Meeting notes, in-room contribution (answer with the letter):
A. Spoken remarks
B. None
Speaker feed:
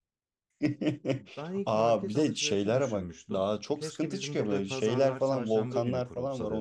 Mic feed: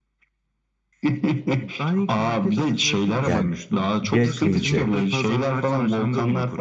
A